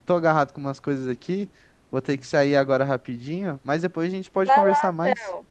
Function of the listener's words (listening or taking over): taking over